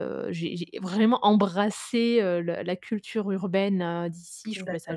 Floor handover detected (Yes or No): No